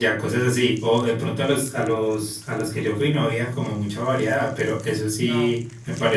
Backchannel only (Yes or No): Yes